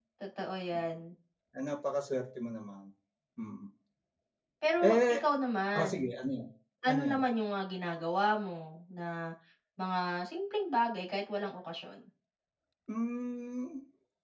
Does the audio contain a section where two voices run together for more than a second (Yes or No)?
No